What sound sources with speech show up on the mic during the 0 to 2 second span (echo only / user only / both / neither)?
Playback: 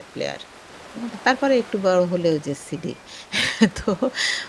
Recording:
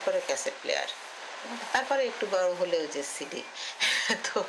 echo only